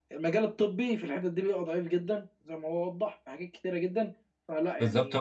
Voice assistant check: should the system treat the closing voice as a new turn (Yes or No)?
Yes